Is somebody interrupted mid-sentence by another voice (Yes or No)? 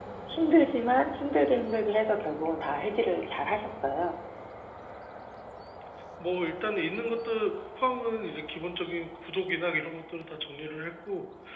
No